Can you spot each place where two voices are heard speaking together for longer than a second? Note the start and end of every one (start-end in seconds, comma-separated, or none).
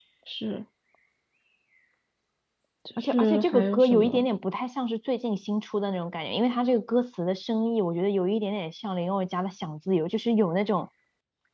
3.0-4.3